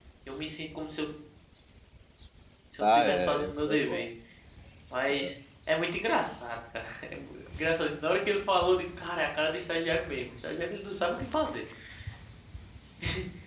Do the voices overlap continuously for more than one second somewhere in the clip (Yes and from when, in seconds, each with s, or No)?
Yes, from 2.8 s